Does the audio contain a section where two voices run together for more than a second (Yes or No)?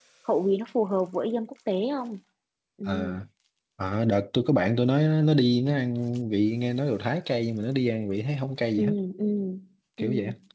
No